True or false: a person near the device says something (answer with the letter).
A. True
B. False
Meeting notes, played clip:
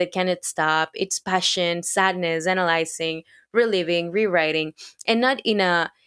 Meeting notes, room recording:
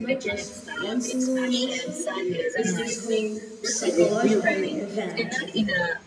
A